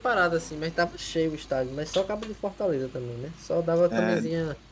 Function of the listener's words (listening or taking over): listening